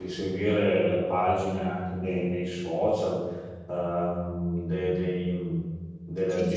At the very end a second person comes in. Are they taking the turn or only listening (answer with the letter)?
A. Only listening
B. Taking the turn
B